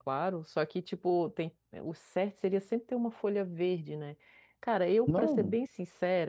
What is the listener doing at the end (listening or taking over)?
listening